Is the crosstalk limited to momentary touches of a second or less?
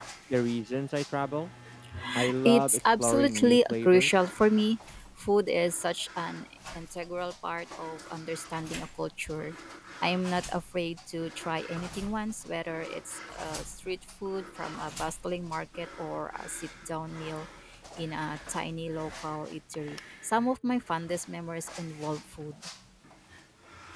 No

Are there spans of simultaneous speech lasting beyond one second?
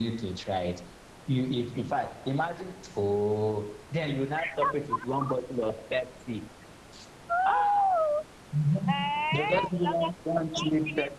Yes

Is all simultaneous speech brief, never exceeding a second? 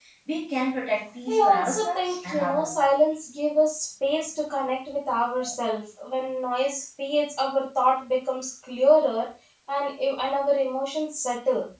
No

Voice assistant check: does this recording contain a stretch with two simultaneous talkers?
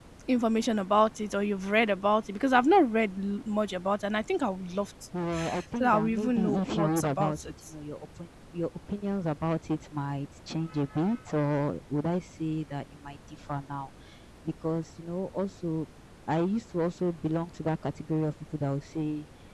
Yes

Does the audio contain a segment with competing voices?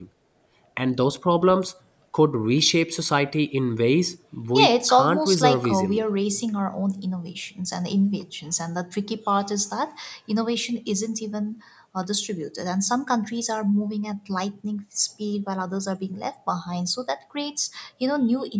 Yes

